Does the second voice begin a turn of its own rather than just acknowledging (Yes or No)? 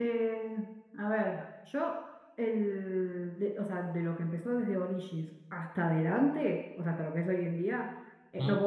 No